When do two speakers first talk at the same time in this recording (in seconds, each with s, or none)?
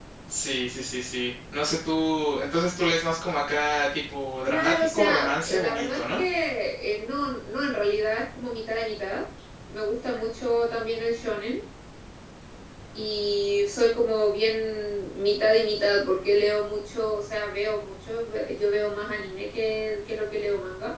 4.4 s